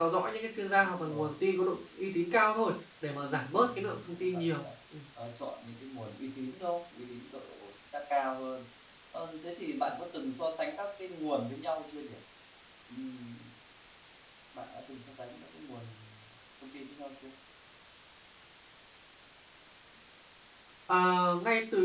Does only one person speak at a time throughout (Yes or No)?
No